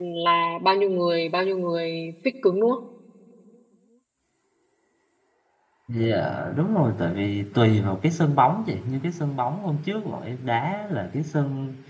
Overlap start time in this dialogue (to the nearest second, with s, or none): none